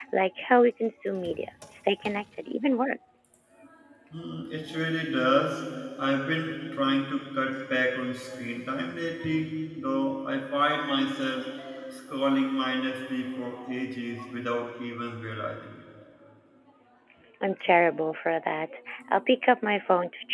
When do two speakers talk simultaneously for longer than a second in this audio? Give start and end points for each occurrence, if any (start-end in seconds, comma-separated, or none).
none